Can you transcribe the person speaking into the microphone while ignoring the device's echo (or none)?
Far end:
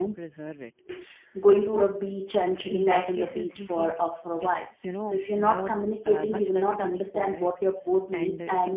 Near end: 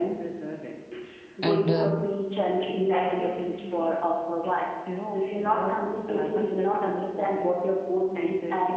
and uh,